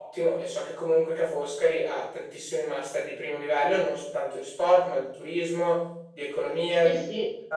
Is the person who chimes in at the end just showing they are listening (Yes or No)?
Yes